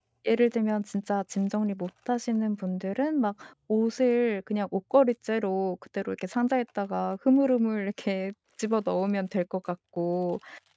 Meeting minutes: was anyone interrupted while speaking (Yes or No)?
No